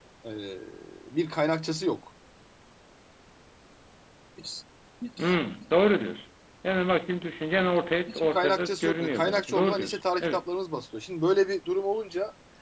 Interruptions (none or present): present